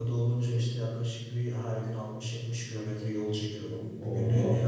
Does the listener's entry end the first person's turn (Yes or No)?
No